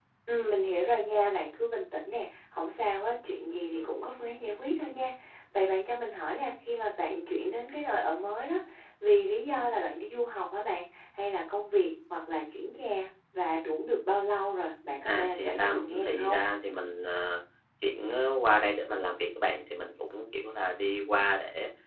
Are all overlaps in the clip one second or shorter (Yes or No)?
No